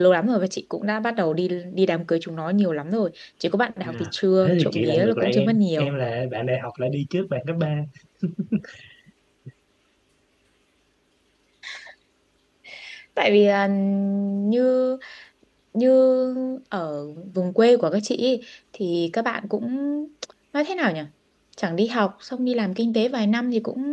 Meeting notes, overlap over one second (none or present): present